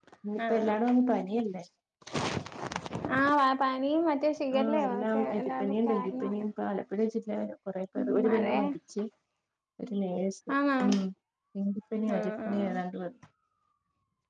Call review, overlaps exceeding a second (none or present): present